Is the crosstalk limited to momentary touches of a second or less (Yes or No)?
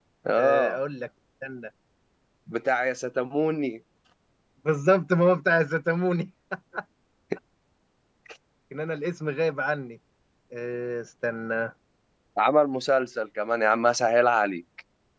Yes